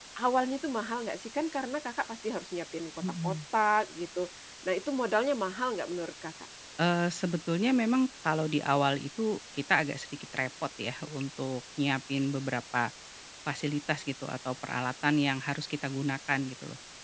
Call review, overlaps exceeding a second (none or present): none